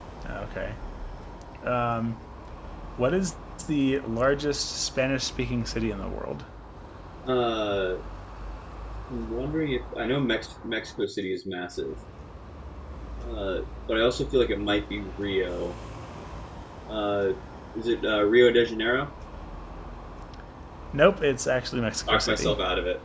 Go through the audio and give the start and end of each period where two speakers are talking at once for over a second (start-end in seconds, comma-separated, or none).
none